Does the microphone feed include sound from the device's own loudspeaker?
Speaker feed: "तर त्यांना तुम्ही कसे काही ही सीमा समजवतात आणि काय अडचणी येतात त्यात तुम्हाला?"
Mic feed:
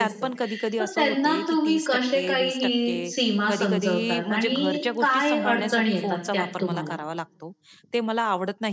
Yes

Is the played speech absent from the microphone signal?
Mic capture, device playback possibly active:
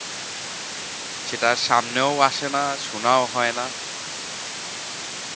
Yes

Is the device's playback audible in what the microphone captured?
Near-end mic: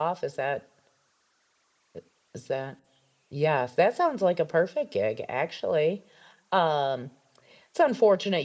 No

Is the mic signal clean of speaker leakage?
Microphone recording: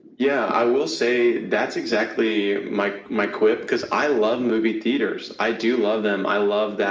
No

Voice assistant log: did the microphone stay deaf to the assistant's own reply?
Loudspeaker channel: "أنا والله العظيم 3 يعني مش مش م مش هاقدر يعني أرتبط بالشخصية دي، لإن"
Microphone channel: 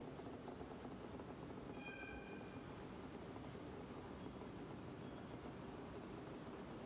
Yes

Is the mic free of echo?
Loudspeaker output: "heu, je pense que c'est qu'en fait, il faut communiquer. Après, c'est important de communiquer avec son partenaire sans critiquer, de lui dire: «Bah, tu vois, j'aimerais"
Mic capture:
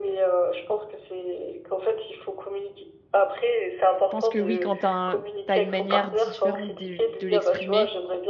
No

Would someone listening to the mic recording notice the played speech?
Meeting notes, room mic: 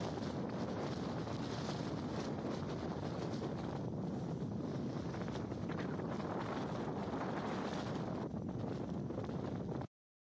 No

